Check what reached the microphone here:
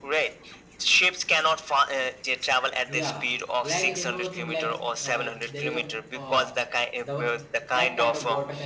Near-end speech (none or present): present